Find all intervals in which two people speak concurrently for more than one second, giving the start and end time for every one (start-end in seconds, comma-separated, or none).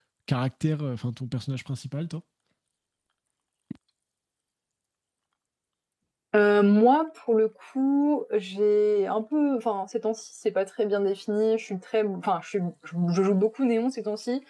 none